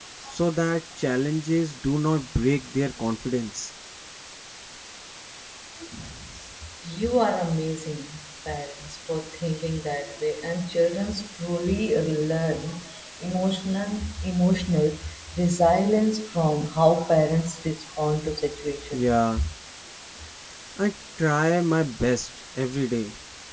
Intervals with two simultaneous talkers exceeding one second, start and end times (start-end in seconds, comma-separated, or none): none